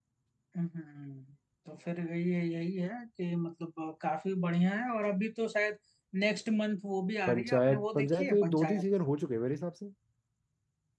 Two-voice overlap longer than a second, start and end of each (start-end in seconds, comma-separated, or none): 7.3-8.8